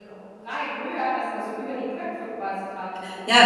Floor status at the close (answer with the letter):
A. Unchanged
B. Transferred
B